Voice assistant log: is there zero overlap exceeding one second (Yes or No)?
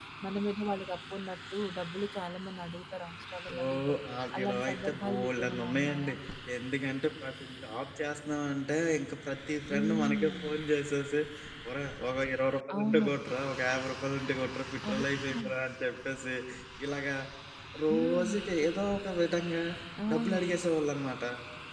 No